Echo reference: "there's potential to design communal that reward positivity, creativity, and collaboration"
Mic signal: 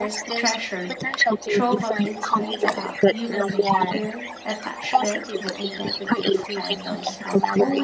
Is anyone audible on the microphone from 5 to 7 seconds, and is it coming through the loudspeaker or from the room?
both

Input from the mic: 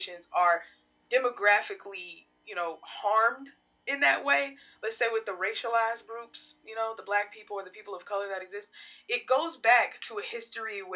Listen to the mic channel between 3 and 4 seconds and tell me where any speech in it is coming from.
echo only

